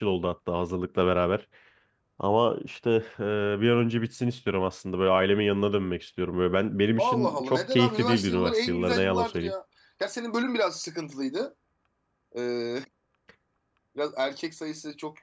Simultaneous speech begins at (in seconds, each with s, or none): 7.0 s